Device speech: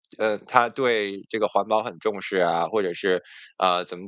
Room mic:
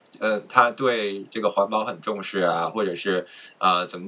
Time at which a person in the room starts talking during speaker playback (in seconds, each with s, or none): none